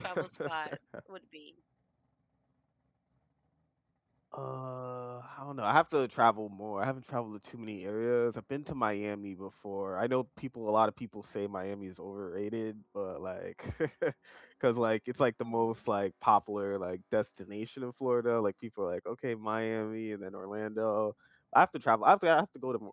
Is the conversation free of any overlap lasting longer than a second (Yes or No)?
Yes